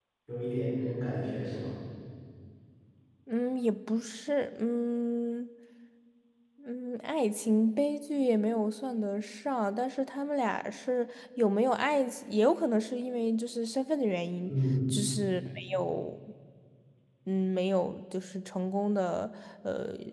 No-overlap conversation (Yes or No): Yes